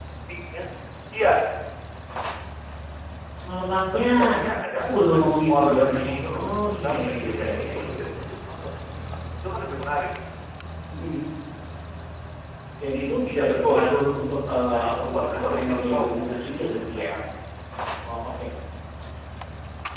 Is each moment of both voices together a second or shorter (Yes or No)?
No